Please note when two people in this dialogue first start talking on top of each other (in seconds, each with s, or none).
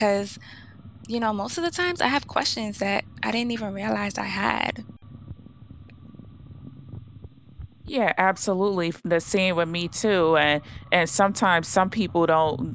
none